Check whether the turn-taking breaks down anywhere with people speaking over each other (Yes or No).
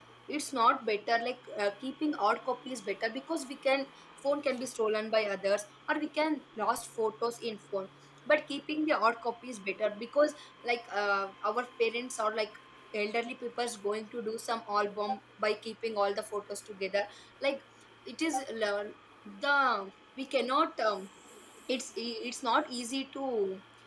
No